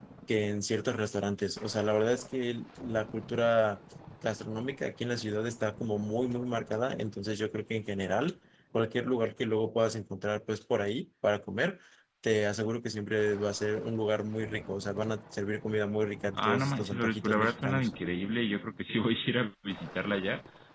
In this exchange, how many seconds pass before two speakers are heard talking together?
16.4 s

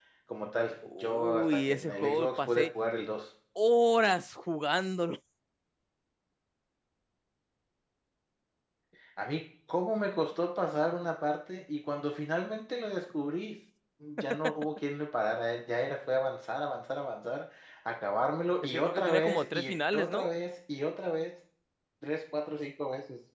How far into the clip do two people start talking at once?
0.8 s

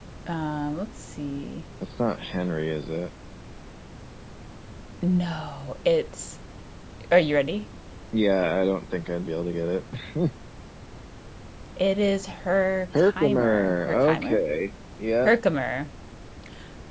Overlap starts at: 12.9 s

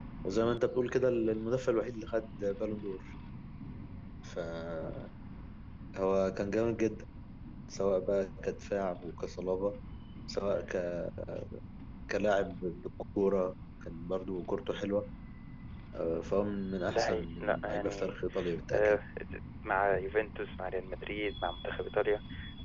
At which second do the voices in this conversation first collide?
16.9 s

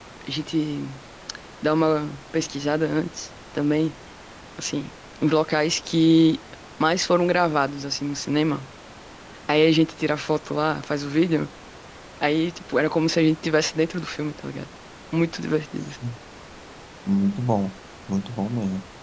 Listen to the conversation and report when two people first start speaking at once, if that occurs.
none

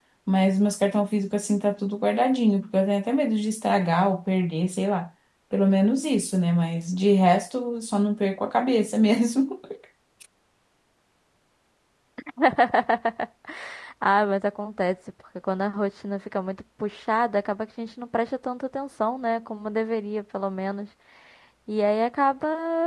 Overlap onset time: none

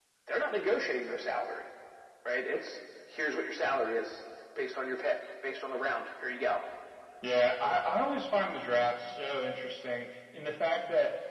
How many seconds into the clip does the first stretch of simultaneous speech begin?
none

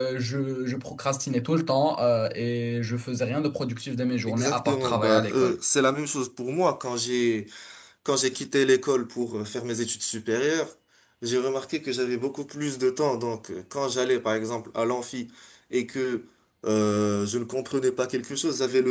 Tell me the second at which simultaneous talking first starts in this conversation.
4.3 s

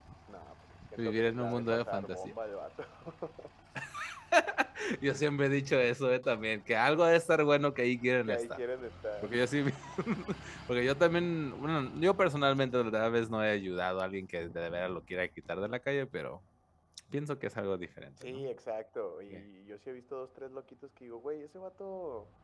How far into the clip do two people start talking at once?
1.0 s

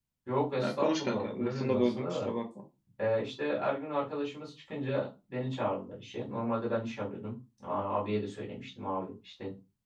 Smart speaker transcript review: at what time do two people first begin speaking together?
0.6 s

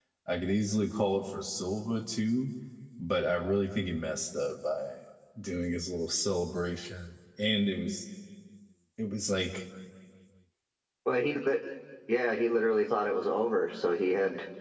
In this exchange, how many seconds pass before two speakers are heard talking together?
none

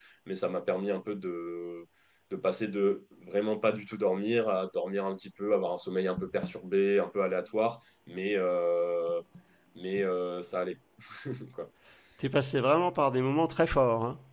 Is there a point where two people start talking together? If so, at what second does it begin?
none

